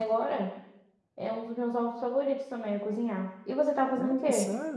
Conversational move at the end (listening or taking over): taking over